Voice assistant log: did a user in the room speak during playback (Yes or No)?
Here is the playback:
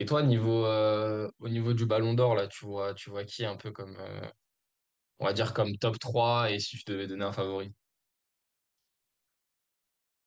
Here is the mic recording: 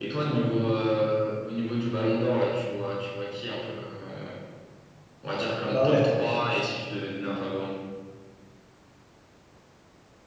Yes